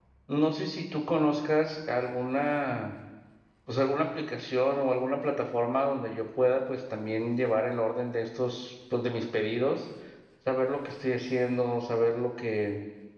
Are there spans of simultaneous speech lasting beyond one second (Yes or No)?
No